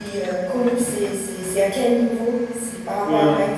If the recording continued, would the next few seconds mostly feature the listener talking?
Yes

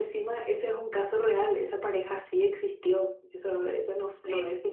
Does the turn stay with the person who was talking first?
Yes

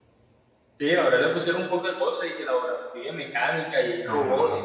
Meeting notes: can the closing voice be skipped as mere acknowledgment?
No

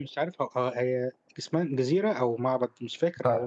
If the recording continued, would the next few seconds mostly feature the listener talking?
Yes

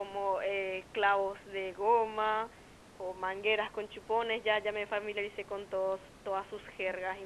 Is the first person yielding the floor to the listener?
No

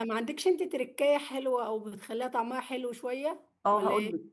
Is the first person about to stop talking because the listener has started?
Yes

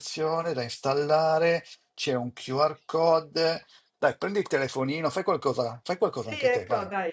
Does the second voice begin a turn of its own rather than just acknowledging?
Yes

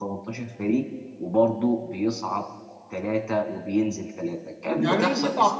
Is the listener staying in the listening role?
No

